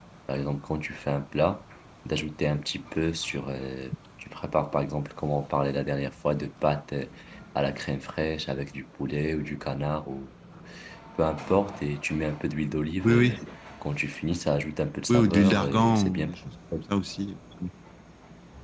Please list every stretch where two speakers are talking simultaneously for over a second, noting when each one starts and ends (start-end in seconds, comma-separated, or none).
15.1-16.3